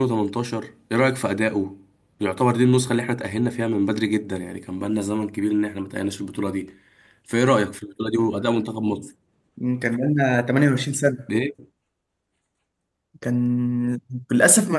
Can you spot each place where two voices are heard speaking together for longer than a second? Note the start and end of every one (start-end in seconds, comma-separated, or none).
none